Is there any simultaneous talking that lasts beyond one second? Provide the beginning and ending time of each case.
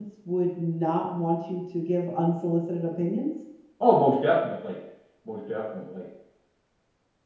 none

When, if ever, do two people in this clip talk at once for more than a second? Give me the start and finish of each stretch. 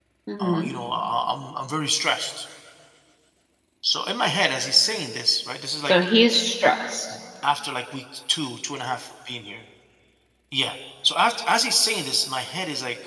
none

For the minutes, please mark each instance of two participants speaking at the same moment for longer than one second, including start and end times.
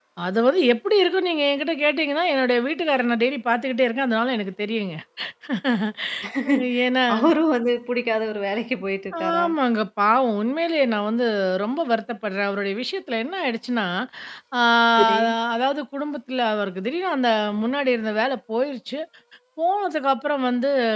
none

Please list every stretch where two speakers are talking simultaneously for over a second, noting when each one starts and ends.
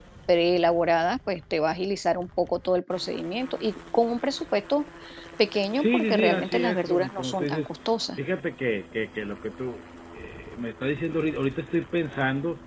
5.8-7.7

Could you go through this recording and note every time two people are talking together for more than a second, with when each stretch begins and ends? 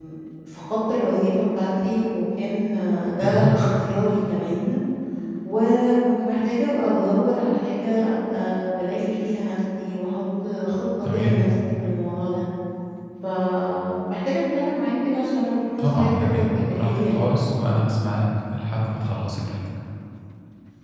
15.8-17.2

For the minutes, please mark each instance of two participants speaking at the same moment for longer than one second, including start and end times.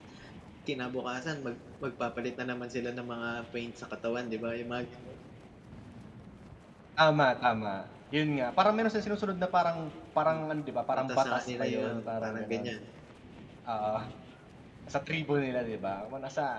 10.9-12.7

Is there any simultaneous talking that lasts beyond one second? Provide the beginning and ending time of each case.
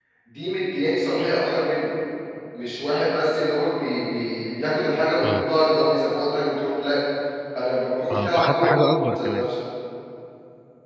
8.1-9.5

